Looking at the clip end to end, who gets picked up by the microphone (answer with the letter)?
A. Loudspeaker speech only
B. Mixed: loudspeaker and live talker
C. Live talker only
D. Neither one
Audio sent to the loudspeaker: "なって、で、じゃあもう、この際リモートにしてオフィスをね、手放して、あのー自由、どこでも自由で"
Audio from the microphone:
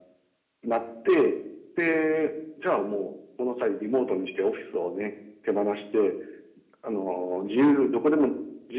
A